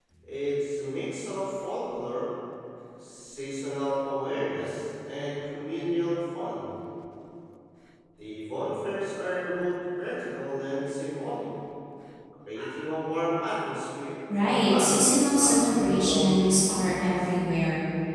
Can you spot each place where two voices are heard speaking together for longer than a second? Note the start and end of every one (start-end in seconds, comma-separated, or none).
14.3-17.3